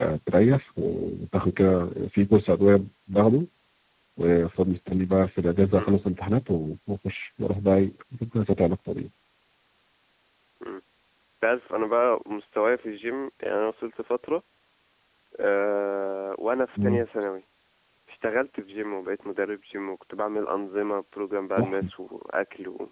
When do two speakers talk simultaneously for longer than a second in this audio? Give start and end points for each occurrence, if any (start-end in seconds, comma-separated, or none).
none